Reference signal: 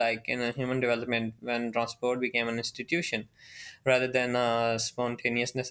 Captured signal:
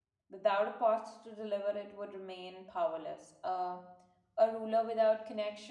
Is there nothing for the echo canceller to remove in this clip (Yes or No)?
Yes